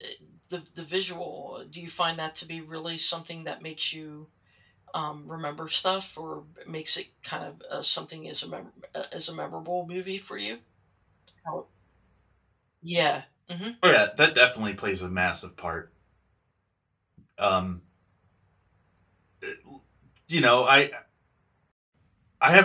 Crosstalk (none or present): none